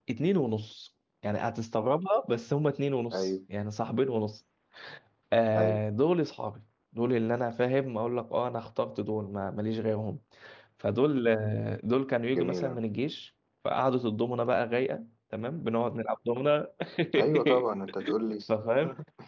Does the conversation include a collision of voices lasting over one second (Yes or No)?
No